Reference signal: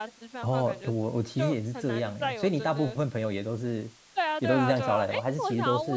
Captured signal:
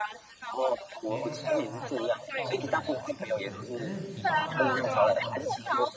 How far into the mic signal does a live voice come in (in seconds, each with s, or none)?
1.0 s